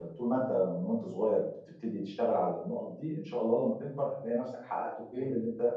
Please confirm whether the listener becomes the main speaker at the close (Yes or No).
No